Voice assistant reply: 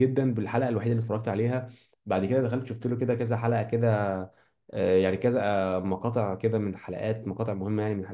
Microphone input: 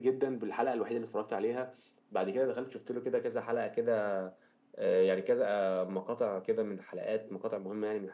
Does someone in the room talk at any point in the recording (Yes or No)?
No